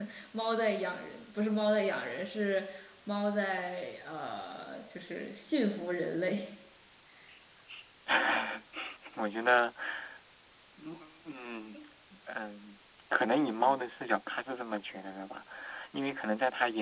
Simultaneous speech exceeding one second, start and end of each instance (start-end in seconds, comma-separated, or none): none